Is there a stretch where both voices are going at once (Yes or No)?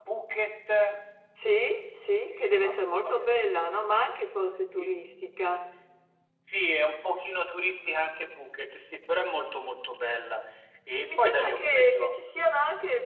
Yes